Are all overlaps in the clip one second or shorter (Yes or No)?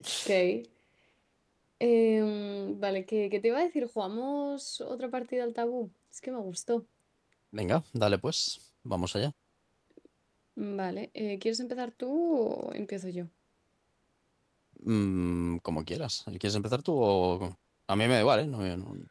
Yes